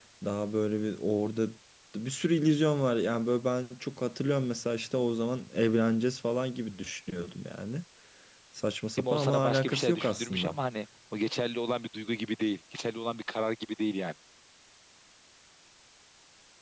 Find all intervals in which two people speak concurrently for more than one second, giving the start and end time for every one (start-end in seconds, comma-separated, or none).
9.0-10.6